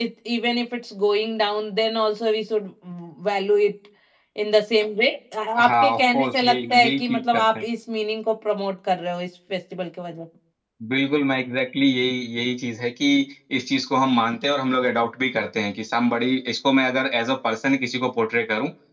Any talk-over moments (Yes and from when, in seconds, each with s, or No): Yes, from 5.6 s